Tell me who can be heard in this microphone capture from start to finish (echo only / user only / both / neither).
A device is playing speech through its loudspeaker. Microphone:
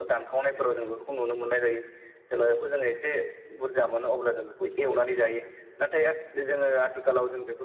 echo only